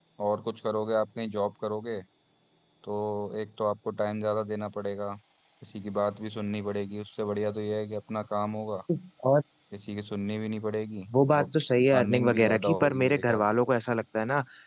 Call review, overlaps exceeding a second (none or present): present